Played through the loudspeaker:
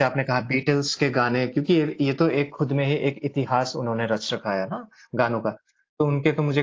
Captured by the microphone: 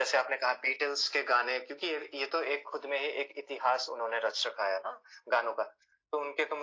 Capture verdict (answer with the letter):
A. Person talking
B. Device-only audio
B